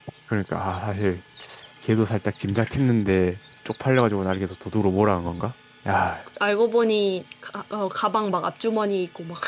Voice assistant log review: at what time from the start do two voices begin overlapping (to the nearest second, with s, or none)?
none